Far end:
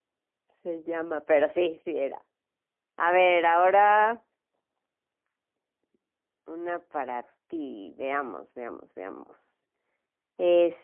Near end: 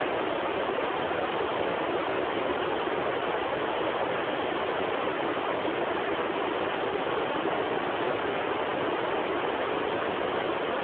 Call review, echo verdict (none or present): none